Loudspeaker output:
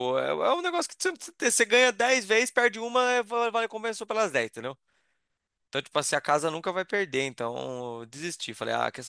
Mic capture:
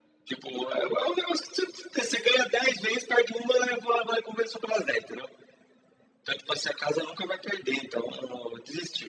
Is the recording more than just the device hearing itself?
No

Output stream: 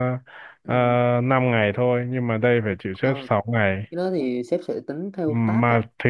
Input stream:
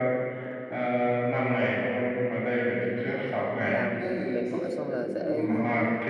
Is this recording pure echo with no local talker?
No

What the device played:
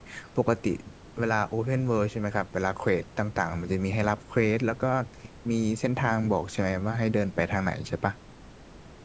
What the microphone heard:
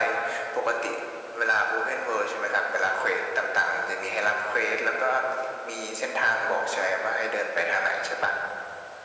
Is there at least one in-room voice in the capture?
No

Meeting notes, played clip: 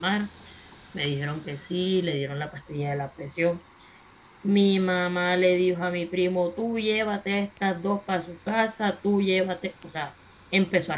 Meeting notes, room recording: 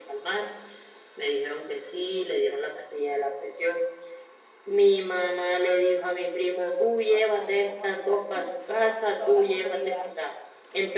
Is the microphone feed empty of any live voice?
No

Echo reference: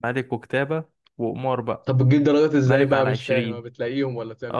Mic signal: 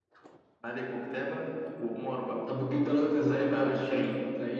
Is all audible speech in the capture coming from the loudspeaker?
Yes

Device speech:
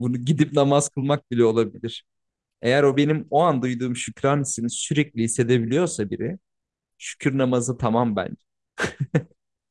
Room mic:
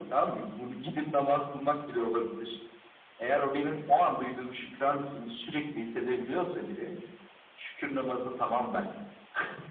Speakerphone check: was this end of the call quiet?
Yes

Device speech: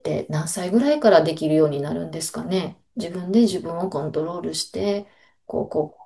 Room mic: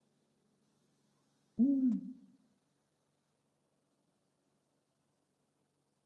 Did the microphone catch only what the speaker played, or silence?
No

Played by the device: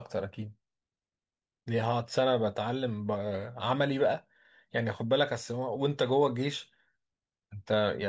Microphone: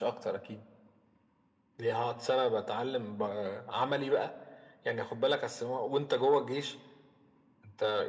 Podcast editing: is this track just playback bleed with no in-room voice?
Yes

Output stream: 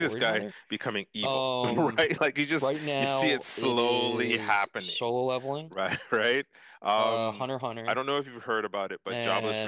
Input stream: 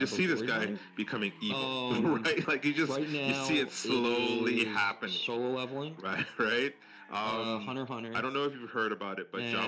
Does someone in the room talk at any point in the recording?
No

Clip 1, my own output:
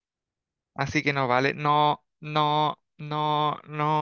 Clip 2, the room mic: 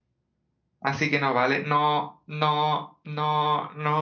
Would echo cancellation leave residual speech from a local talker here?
No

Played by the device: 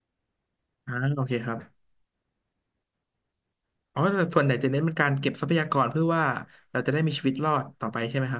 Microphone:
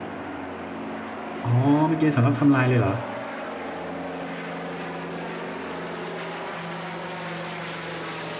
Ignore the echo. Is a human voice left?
Yes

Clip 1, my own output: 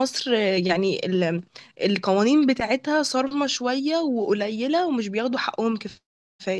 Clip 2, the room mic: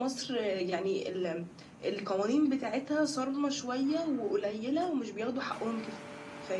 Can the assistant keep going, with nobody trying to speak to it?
Yes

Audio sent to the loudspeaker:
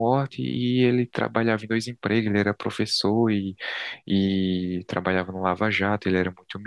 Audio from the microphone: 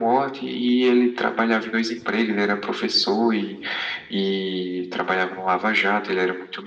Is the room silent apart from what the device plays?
Yes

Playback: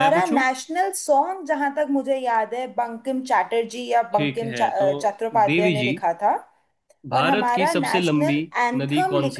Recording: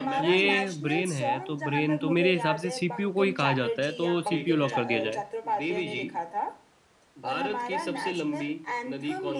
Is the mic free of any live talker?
No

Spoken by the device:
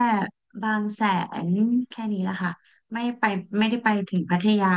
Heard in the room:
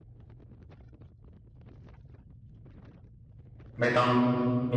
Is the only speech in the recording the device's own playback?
No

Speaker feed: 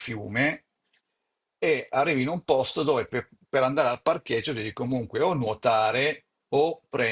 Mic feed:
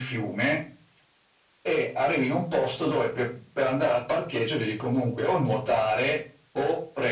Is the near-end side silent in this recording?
Yes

